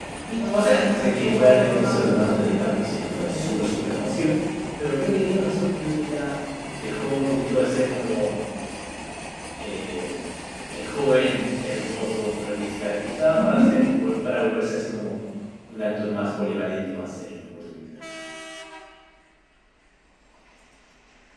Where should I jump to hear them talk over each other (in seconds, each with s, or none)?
0.5 s